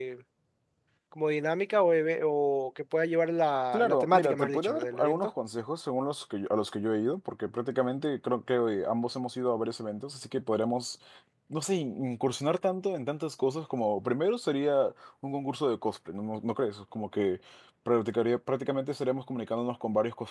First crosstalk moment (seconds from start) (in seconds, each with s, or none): 3.7 s